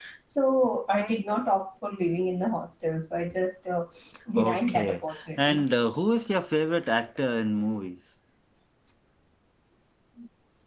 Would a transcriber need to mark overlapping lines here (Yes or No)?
Yes